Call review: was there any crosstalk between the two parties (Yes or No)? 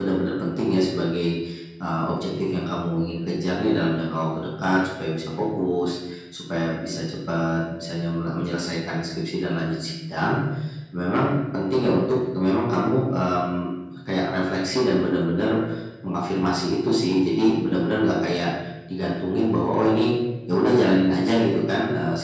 No